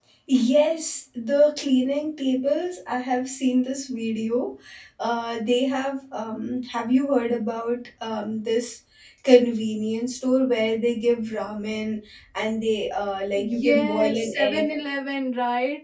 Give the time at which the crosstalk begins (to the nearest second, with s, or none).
13 s